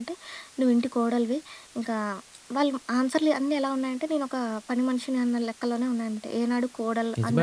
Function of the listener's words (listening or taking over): taking over